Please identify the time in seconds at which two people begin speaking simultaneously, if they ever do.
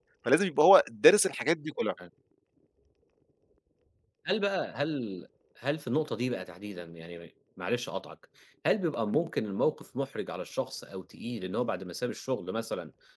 none

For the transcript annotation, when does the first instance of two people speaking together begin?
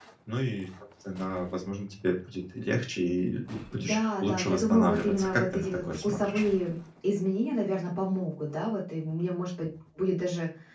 3.7 s

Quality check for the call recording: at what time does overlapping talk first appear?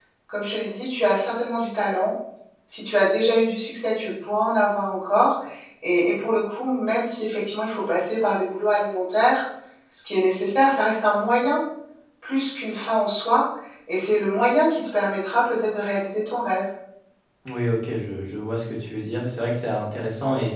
none

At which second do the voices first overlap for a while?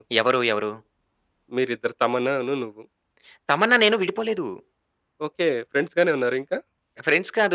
none

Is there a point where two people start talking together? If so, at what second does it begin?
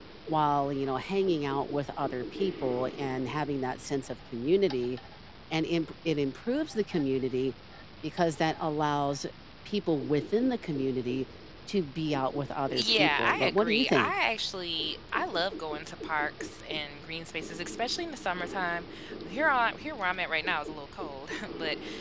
12.7 s

